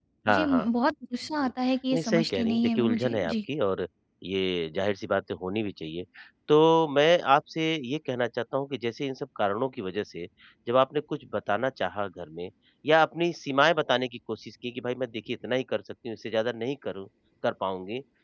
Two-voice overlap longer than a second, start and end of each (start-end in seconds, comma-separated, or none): 1.9-3.3